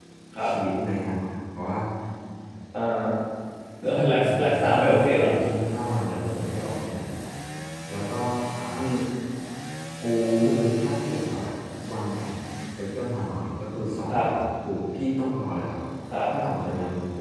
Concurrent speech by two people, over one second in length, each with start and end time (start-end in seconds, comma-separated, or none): 4.1-5.3